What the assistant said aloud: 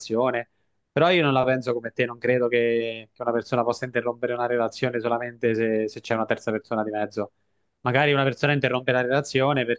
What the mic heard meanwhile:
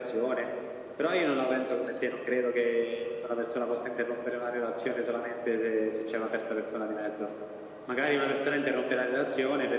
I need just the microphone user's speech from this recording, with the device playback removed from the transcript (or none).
none